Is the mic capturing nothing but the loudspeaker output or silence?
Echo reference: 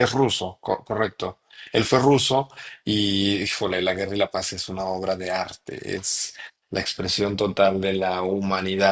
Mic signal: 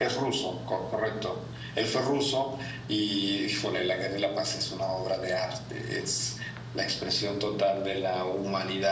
Yes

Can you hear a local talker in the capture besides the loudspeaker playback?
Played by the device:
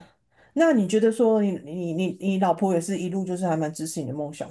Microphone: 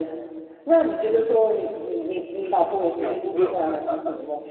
Yes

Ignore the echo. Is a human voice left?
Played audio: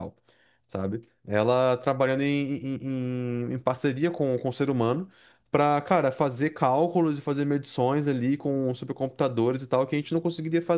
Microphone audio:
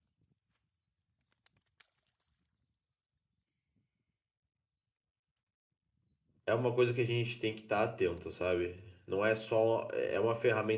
Yes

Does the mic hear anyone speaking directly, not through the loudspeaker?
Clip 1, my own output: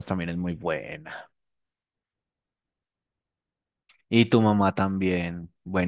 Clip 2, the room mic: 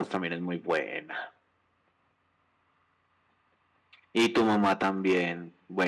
No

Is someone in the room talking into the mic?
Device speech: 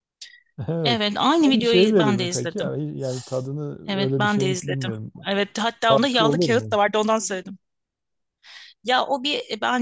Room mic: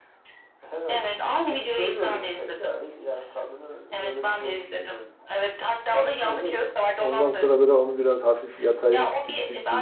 Yes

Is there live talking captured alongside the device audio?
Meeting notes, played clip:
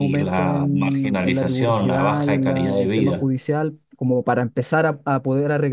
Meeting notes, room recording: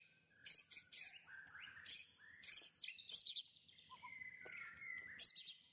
No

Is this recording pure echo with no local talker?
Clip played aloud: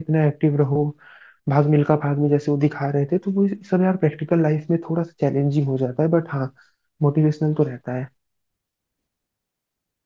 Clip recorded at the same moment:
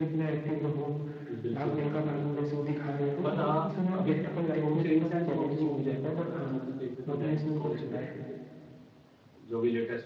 No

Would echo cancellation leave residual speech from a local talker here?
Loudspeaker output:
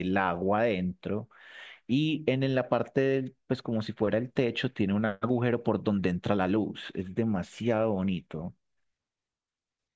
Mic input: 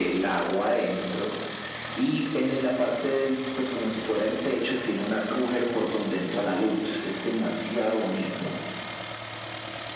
No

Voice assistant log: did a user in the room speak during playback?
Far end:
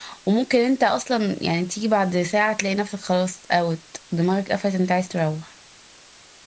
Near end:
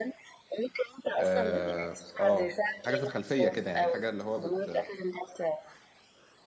Yes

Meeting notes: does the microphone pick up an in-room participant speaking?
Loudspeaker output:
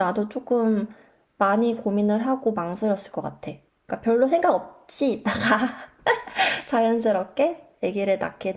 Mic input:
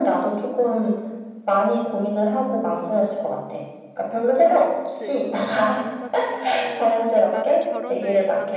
Yes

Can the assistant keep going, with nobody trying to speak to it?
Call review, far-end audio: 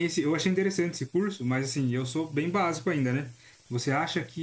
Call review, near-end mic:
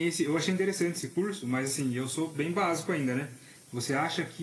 Yes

